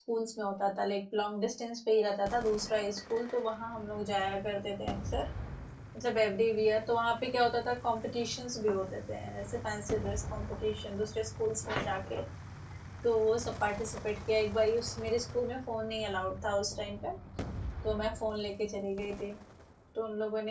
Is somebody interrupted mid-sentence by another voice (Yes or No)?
No